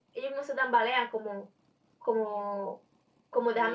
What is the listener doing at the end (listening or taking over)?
taking over